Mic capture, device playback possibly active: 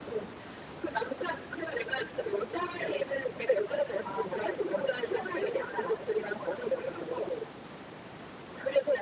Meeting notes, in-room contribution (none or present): none